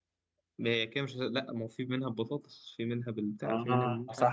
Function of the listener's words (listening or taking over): taking over